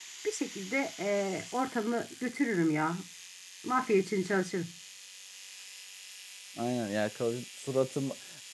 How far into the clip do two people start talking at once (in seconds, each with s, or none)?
none